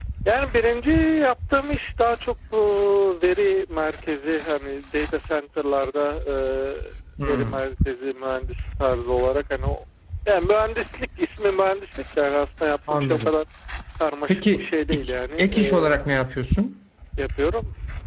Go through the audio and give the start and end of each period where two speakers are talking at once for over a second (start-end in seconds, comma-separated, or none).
14.3-16.0